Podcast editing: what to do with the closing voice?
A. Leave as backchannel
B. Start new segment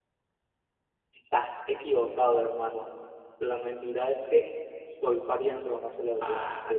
B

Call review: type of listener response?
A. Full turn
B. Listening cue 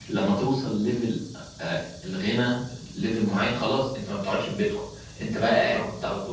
B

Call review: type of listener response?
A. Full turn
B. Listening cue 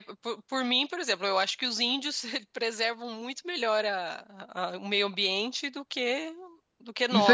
A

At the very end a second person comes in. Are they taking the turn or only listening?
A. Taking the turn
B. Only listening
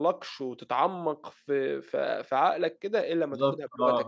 A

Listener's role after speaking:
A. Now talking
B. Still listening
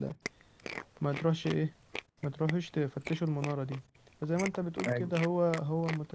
B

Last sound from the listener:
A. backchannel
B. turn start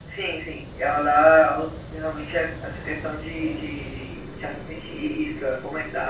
B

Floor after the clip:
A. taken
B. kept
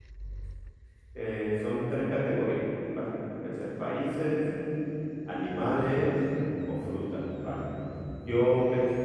B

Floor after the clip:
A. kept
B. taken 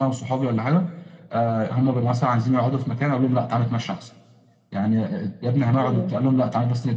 A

